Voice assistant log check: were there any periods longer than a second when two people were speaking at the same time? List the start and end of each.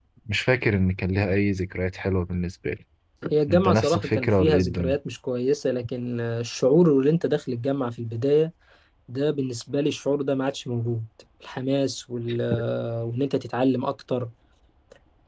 3.5-5.0

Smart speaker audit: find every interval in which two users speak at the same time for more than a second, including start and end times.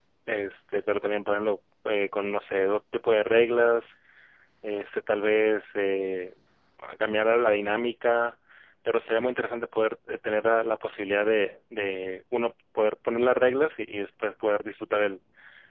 none

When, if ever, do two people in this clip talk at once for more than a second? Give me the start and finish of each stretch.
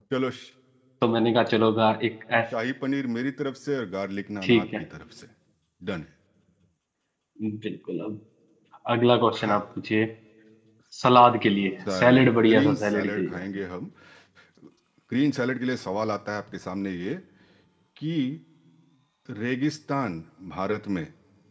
11.9-13.4

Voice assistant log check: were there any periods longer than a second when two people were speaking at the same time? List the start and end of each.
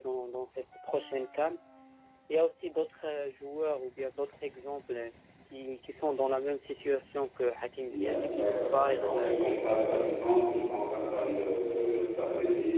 7.9-9.7

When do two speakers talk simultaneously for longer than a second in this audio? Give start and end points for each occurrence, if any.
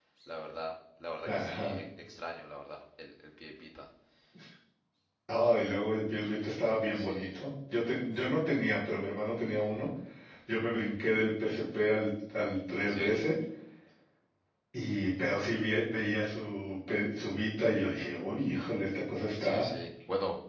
none

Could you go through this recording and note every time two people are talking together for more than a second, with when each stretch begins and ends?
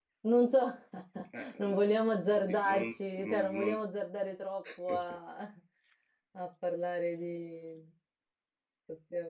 2.4-3.8

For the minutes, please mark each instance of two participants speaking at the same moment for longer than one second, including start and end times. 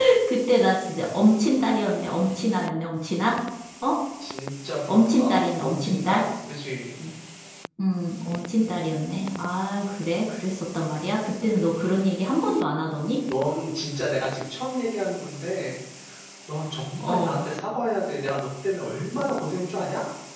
4.9-6.2

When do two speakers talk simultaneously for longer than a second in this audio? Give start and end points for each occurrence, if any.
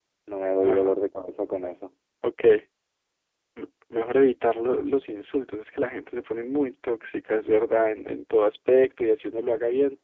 none

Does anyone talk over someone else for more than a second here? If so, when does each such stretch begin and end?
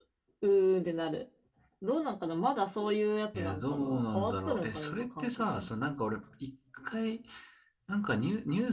3.4-5.7

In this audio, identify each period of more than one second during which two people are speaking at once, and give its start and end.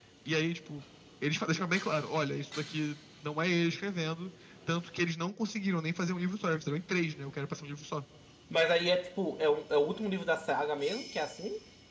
none

